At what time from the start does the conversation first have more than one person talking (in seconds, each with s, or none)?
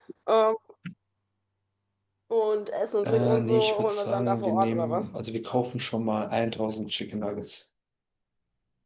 3.0 s